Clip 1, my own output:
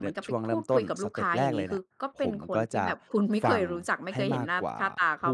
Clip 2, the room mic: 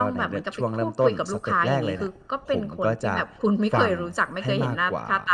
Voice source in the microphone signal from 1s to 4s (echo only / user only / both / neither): echo only